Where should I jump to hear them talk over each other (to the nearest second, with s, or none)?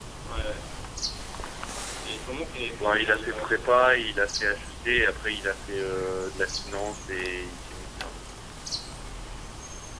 3 s